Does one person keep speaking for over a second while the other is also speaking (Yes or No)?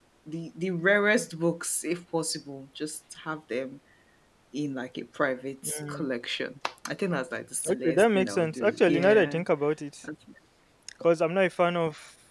Yes